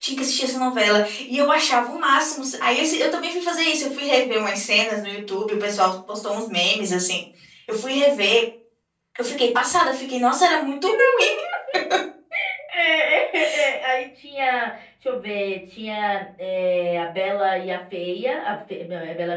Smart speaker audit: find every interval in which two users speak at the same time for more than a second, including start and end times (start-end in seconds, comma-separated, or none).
none